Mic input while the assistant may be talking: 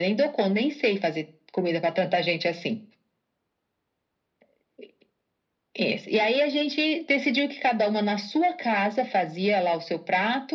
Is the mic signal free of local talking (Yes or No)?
Yes